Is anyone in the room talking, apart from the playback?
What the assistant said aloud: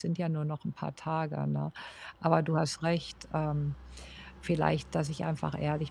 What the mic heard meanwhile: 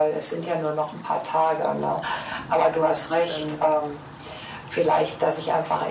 Yes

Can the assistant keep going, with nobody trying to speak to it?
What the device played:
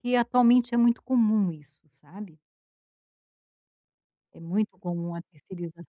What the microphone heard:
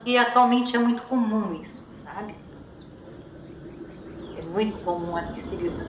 Yes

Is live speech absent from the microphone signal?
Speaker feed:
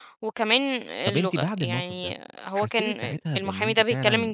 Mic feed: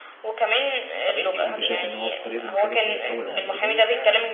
No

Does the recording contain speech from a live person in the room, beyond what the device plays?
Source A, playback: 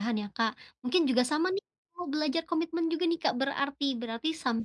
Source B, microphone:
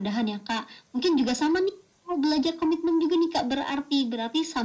No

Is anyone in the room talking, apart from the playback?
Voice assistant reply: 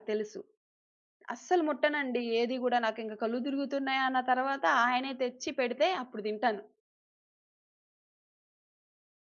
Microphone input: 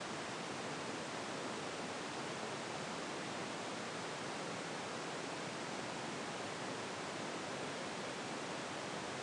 No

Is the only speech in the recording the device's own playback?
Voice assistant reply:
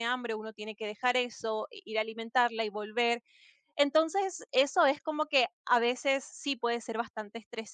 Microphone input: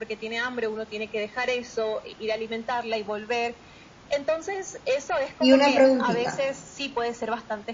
No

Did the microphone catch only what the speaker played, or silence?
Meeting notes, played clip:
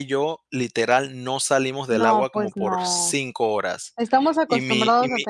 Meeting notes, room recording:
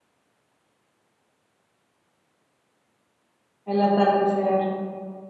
No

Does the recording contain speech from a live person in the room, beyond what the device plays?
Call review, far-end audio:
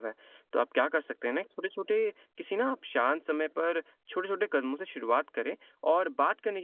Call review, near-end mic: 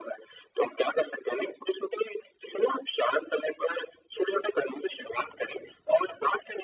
No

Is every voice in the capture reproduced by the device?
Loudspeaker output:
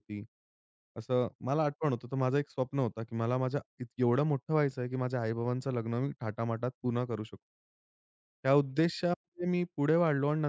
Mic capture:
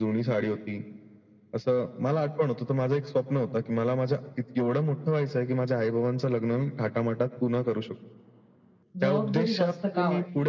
No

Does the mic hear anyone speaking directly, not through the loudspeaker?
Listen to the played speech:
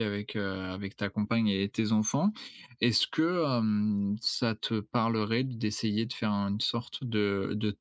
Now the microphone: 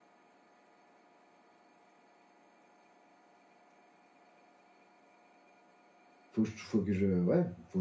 Yes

